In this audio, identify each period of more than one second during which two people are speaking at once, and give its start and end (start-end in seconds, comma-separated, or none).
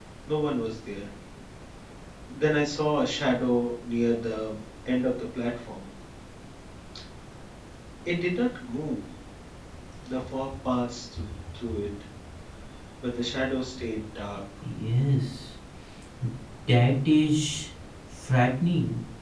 none